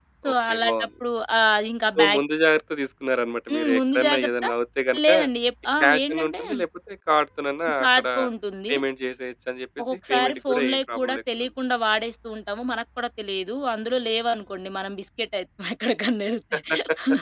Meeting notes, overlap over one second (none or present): present